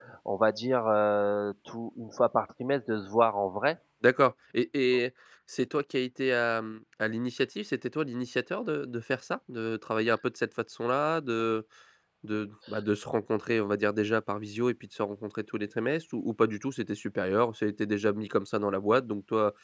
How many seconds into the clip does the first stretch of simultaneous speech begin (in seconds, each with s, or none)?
none